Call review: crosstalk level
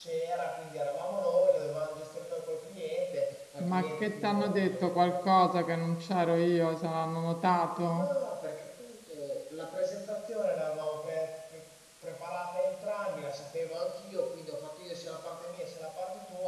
present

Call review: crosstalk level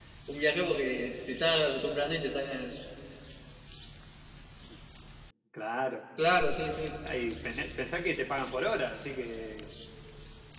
none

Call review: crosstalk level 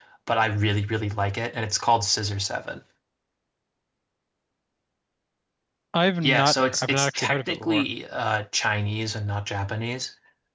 present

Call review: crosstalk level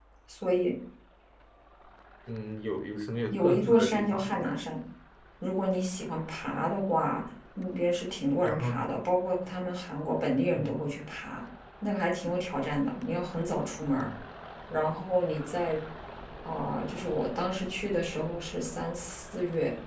present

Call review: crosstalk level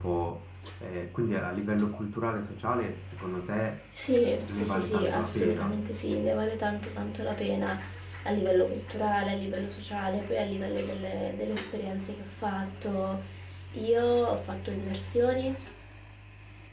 present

